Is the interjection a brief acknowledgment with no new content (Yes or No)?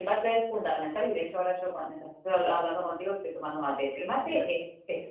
Yes